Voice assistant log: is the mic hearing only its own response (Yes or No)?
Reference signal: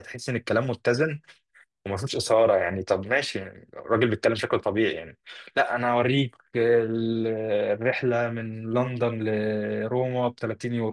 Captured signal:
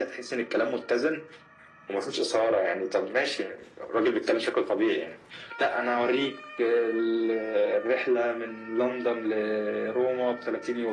Yes